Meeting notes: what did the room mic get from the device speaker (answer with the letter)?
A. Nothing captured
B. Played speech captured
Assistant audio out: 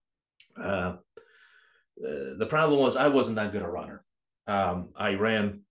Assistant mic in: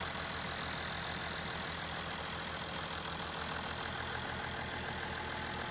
A